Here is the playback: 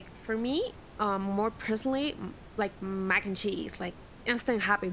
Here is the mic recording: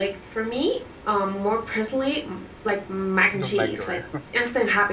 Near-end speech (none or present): present